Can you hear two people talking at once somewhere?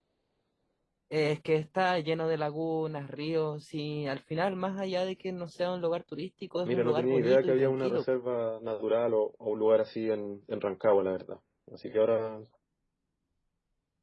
Yes, from 6.6 s

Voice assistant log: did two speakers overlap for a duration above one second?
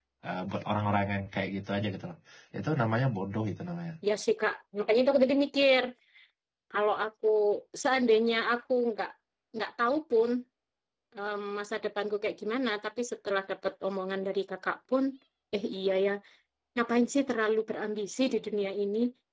No

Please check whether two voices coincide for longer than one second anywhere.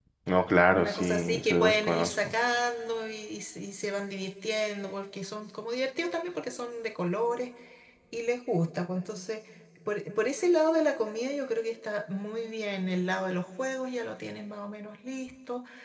Yes, from 0.7 s

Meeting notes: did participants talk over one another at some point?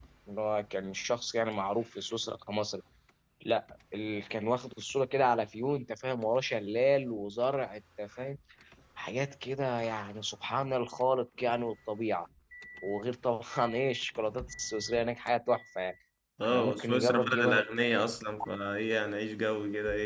Yes, from 16.4 s

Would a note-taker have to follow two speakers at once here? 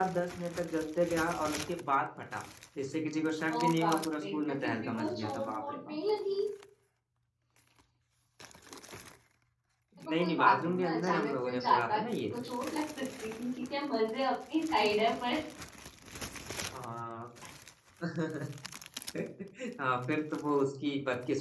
Yes, from 3.5 s

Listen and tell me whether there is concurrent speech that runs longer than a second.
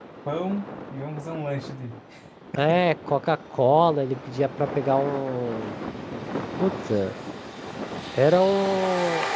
No

